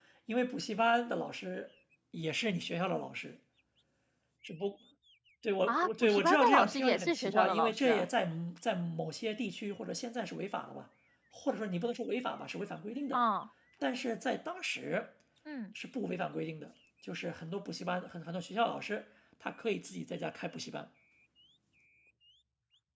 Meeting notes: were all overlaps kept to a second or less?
No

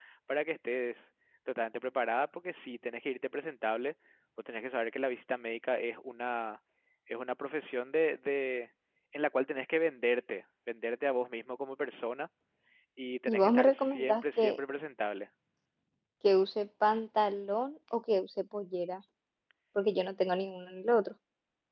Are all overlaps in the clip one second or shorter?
No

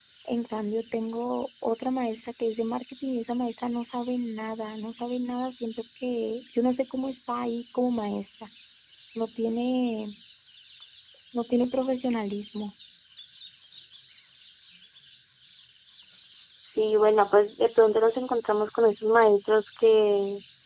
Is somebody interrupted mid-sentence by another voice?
No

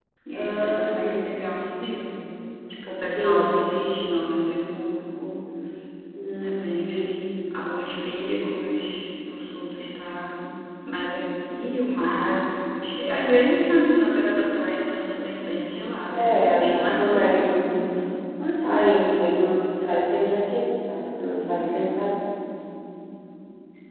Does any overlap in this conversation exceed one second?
Yes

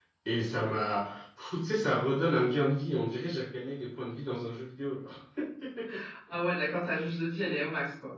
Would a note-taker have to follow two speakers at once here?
No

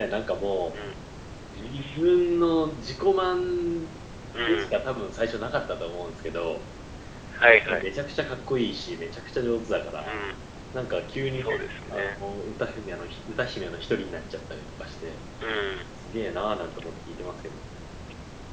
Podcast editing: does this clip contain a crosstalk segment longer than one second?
No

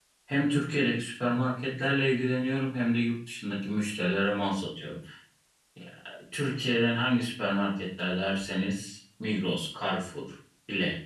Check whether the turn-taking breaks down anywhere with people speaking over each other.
No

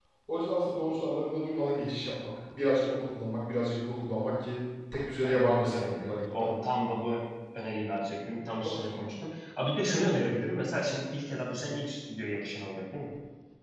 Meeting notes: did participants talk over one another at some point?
Yes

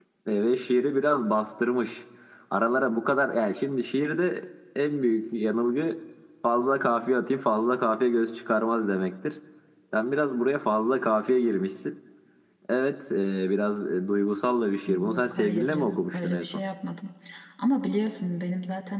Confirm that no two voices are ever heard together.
No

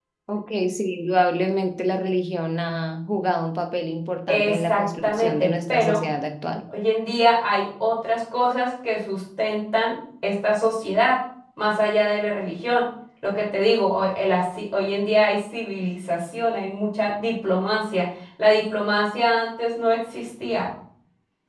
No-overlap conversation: No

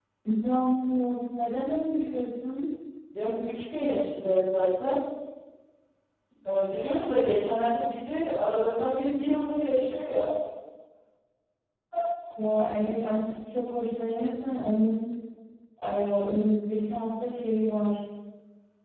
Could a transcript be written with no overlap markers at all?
Yes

